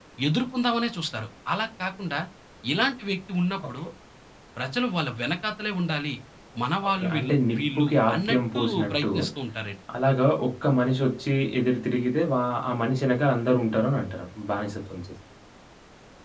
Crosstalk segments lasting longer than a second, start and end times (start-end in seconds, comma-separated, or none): 6.9-9.1